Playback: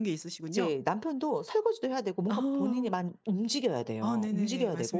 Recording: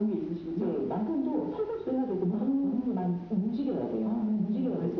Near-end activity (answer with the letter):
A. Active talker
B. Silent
B